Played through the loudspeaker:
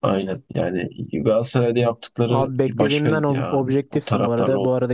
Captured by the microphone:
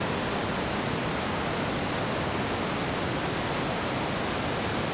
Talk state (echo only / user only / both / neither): neither